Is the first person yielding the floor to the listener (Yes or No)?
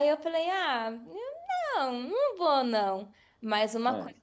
No